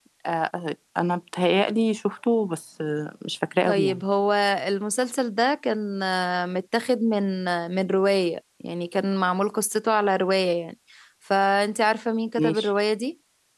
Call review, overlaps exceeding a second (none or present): none